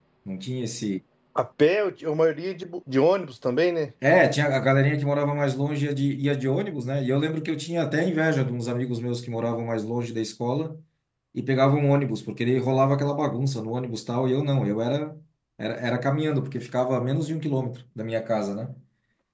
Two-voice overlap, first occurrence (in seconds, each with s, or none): none